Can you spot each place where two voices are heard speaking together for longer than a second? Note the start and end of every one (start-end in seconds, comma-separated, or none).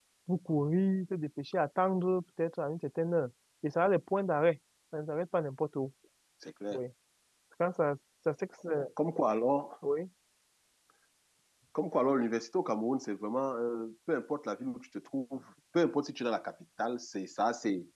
none